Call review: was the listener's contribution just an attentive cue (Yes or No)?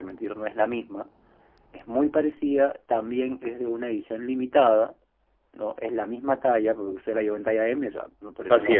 Yes